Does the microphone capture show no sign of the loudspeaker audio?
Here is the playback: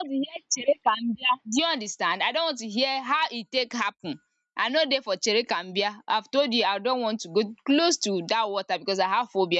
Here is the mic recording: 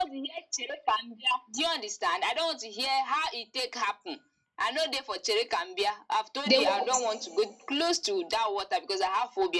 No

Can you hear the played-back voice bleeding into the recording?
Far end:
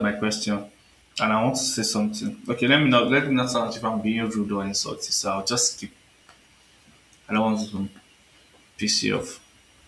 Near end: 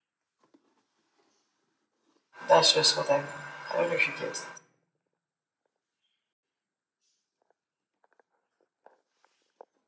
No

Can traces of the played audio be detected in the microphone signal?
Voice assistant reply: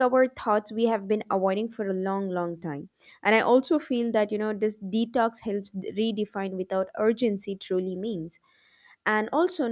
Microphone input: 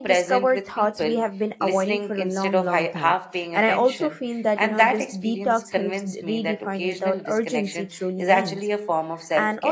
Yes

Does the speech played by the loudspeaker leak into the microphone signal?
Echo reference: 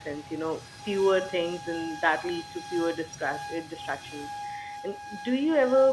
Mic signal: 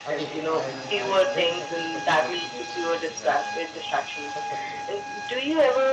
Yes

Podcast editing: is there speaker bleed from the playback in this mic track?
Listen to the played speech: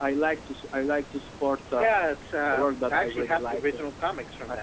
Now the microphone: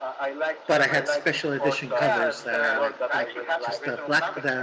Yes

